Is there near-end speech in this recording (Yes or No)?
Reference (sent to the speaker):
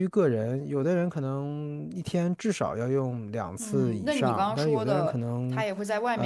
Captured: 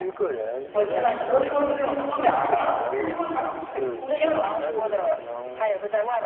Yes